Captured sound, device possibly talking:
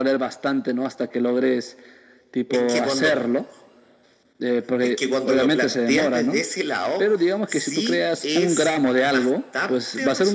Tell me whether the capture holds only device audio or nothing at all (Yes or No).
Yes